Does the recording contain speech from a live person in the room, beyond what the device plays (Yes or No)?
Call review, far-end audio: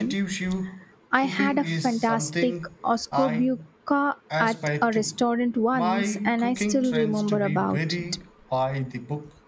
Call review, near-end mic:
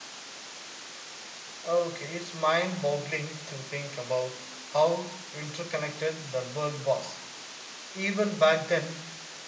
Yes